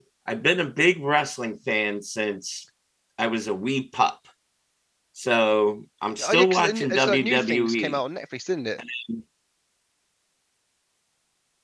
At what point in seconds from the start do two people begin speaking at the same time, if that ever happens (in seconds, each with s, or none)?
6.2 s